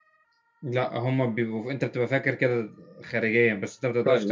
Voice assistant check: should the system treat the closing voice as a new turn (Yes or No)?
Yes